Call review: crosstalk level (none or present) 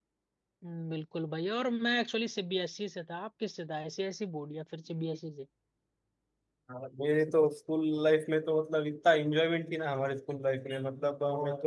none